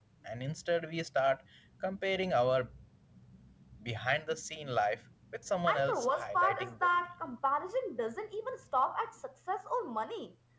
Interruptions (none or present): present